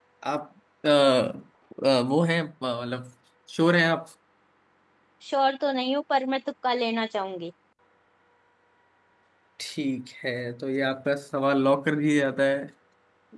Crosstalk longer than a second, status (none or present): none